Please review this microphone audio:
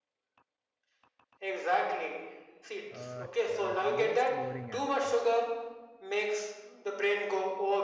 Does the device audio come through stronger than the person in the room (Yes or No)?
Yes